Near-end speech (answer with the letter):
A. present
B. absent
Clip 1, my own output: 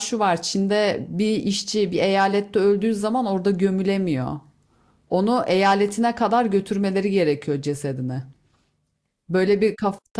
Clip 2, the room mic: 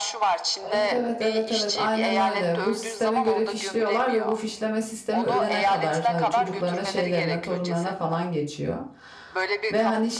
A